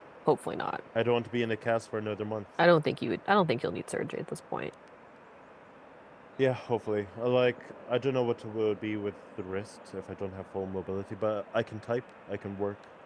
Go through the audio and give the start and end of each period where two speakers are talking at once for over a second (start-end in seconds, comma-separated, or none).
none